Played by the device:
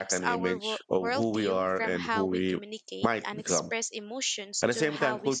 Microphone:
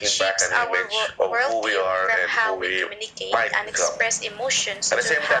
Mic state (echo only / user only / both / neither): echo only